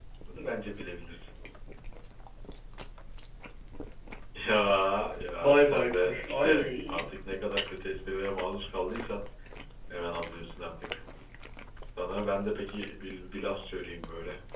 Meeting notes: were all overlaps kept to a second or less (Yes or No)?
No